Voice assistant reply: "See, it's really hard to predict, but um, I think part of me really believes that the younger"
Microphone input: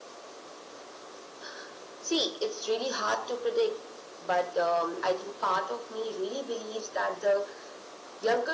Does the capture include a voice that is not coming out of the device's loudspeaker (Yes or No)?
No